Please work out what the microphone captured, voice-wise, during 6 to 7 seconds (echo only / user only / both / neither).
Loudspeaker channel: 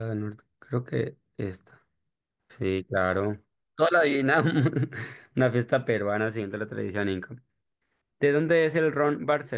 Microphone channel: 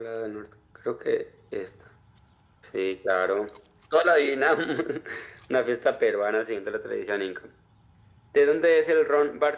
echo only